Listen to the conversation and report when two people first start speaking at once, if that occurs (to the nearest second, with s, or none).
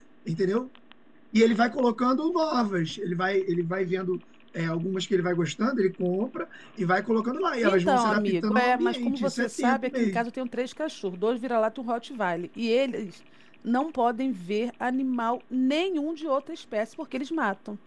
8 s